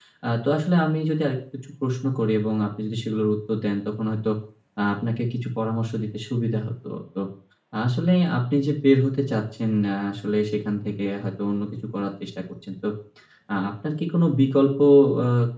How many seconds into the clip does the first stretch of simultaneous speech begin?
none

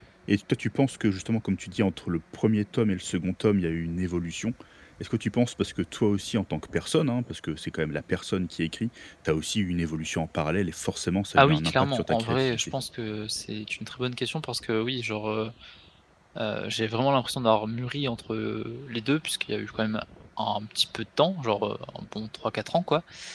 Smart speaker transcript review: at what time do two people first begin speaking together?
11.4 s

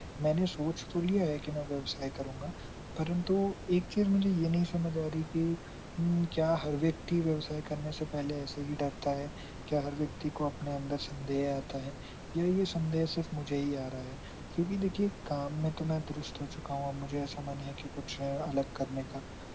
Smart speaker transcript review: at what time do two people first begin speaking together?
none

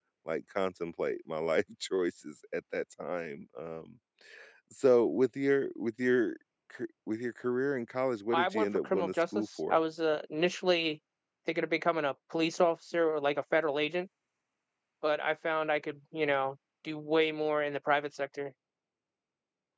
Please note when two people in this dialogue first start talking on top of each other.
8.3 s

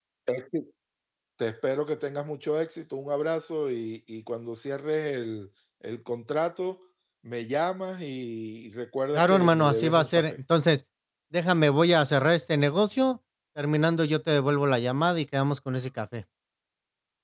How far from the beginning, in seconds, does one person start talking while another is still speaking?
9.1 s

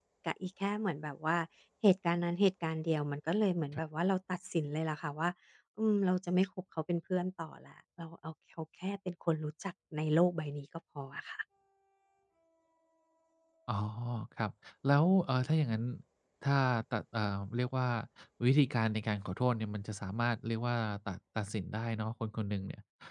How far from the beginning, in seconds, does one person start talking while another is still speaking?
none

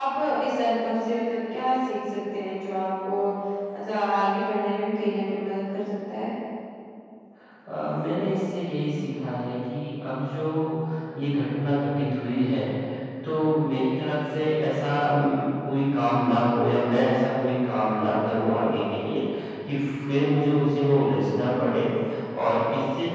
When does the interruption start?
none

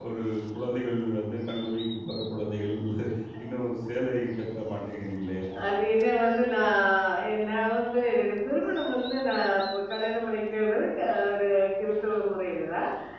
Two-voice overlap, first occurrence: none

